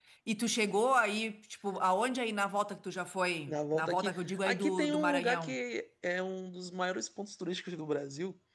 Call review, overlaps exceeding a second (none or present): present